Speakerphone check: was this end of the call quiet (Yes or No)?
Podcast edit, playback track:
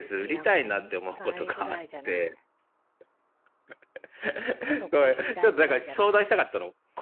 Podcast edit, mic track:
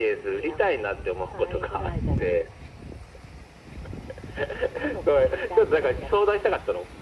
Yes